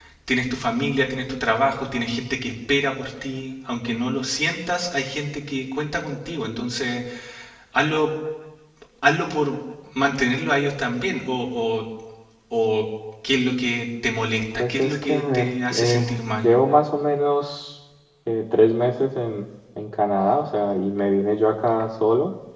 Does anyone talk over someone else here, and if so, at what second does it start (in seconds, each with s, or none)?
14.6 s